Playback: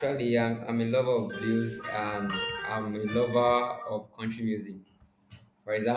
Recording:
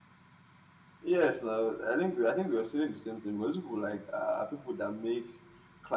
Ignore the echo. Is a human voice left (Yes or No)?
Yes